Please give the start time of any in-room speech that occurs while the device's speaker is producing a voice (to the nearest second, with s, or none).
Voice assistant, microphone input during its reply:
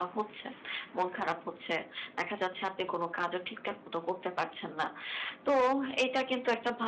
none